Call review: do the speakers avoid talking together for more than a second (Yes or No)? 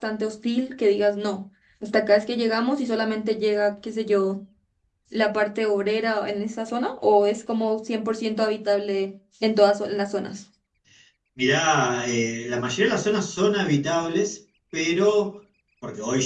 Yes